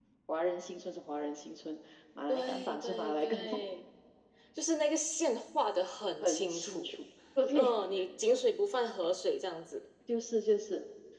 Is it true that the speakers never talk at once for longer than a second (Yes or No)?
No